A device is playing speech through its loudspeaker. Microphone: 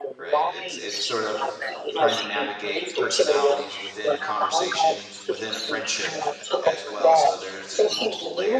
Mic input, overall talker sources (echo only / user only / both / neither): both